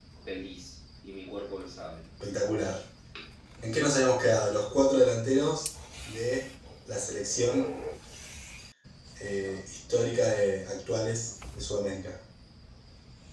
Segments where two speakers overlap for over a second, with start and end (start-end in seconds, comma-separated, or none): none